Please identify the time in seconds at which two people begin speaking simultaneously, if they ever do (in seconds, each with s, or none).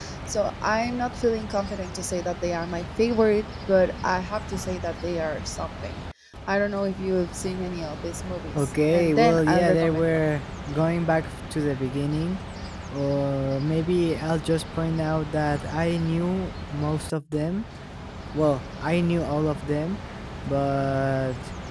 8.6 s